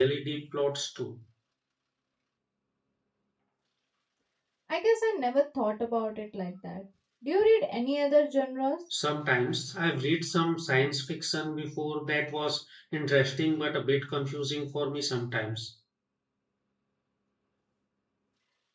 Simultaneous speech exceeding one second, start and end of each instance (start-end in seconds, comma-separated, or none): none